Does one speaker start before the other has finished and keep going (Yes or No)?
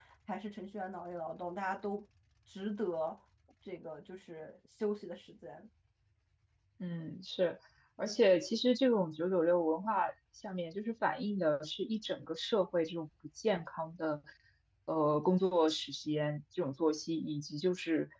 No